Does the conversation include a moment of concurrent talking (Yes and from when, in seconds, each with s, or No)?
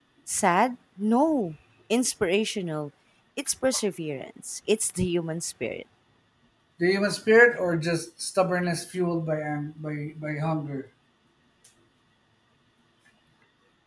No